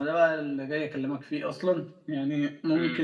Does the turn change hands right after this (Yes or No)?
No